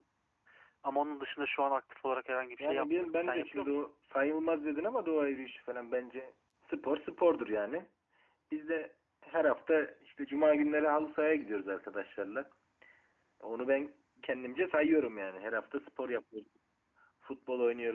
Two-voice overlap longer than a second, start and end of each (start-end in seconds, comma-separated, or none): 2.6-3.8